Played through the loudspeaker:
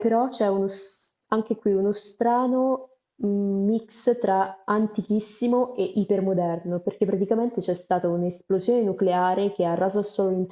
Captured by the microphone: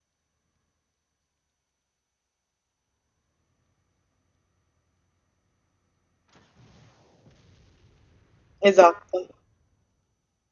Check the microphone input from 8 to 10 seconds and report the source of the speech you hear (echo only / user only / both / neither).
user only